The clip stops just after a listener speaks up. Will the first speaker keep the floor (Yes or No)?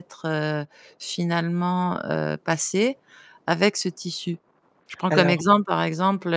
Yes